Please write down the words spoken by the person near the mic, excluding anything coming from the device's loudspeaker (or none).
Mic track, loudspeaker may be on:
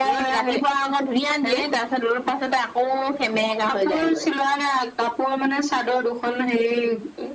none